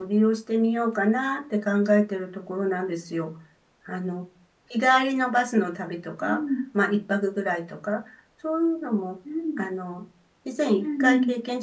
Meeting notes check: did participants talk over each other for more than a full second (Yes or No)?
No